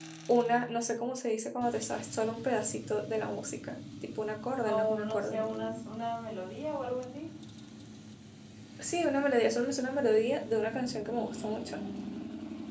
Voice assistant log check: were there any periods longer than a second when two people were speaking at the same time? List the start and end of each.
4.6-5.9

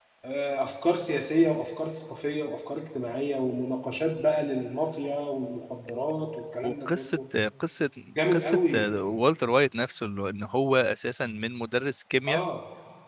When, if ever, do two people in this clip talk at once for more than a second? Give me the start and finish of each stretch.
none

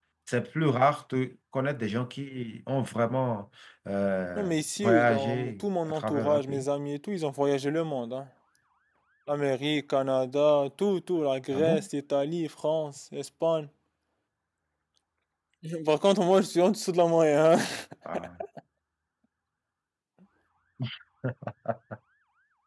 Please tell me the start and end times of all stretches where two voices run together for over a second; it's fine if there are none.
4.4-6.6

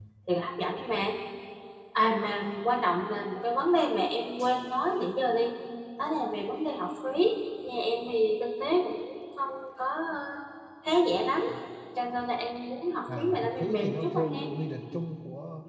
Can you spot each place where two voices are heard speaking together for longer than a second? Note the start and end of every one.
13.2-14.4

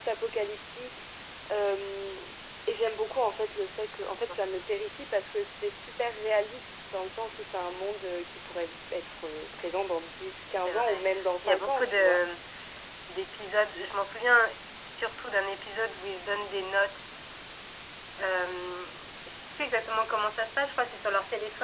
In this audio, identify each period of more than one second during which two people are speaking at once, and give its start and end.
10.7-12.2

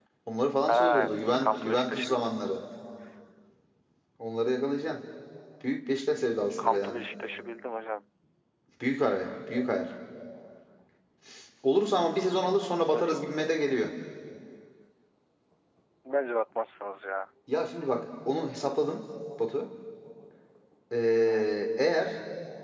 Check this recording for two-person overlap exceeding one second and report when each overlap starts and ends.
0.7-2.3

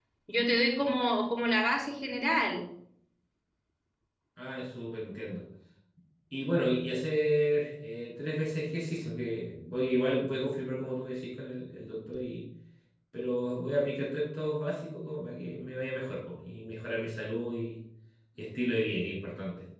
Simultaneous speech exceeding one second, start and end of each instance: none

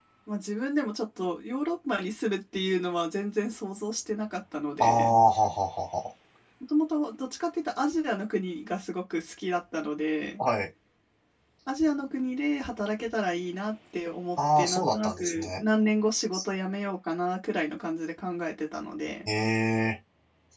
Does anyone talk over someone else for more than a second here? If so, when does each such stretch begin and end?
14.4-15.6

